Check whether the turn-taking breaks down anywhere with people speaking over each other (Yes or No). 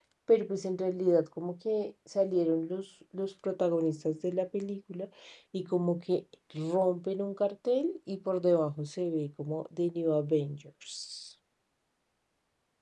No